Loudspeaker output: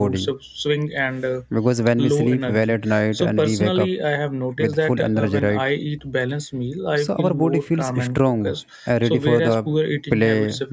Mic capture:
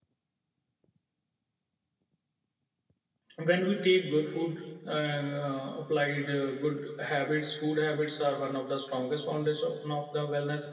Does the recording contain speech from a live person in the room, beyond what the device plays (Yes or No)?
Yes